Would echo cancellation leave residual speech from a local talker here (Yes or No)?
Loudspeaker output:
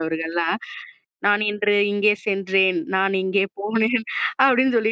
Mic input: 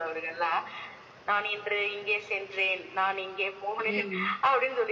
Yes